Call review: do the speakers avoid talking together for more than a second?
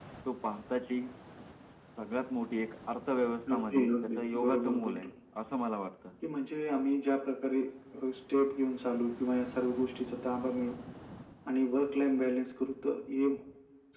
No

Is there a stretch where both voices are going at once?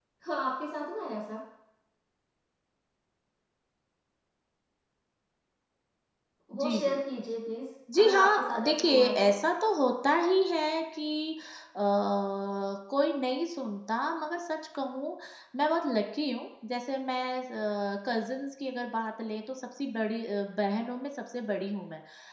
Yes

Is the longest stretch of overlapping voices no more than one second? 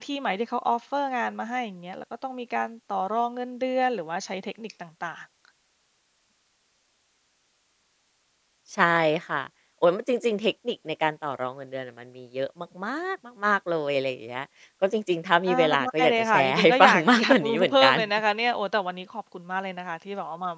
No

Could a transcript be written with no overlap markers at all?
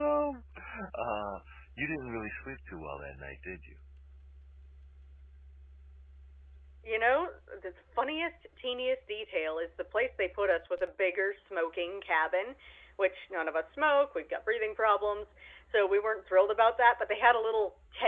Yes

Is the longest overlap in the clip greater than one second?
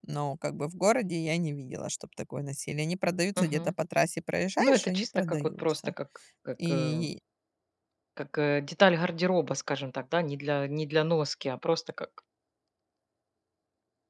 Yes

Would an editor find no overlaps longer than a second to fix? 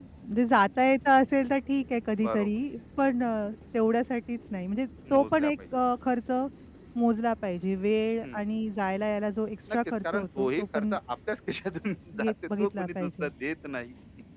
No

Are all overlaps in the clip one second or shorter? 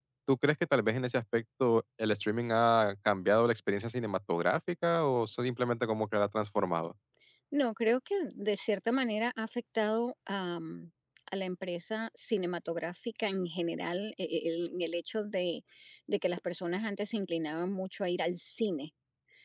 Yes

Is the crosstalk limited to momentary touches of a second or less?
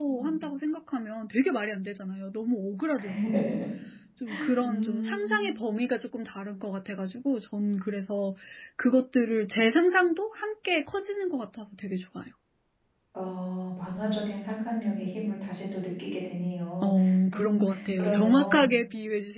No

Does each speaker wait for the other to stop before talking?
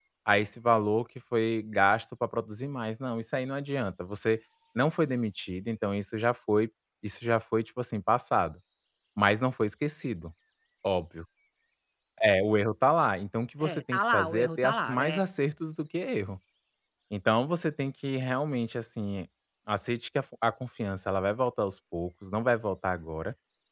No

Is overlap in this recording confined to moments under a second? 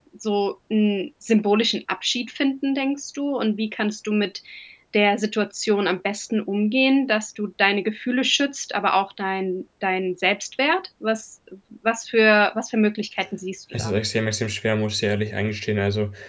Yes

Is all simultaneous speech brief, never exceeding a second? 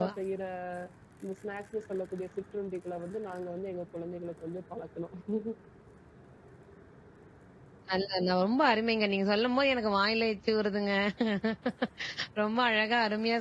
Yes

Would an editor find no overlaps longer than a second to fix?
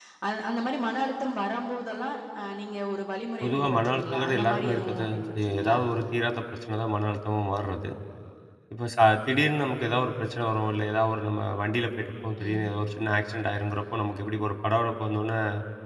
No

